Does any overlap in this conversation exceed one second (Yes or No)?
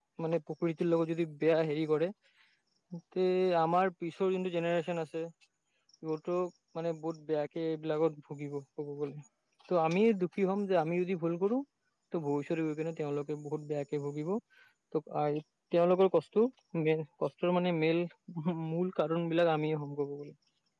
No